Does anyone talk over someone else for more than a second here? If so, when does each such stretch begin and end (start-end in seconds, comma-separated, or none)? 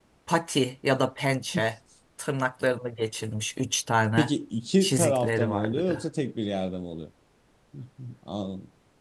4.8-6.0